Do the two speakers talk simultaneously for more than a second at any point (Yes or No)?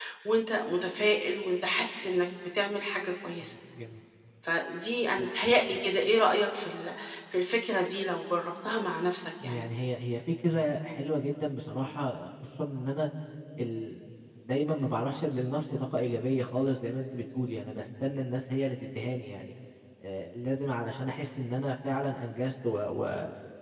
No